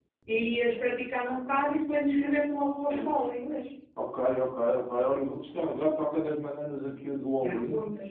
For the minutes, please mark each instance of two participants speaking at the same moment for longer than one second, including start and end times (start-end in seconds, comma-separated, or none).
none